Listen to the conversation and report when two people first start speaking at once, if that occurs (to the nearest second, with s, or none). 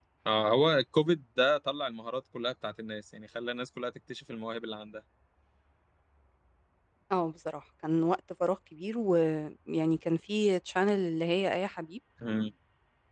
none